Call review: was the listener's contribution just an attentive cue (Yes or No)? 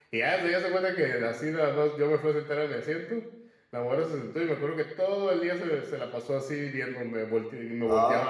Yes